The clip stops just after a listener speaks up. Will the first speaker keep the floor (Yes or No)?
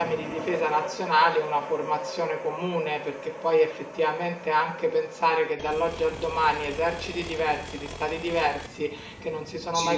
Yes